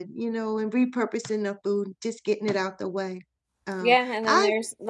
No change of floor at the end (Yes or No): No